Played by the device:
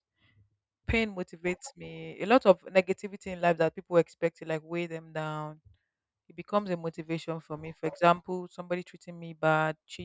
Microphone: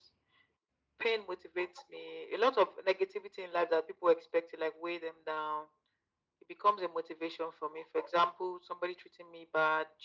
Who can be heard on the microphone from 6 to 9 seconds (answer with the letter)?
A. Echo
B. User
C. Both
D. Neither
A